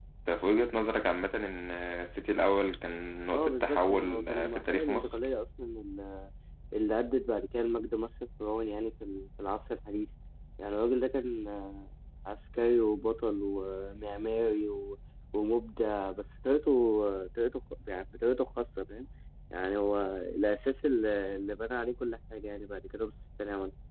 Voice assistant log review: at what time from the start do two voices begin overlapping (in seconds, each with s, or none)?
3.3 s